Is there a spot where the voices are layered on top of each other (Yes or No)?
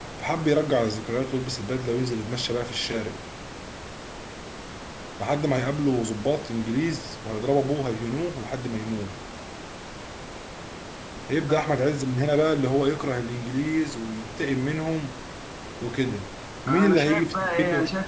Yes